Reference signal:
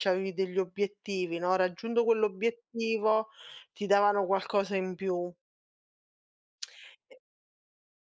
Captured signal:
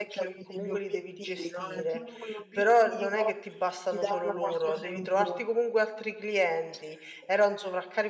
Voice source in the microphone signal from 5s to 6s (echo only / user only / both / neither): both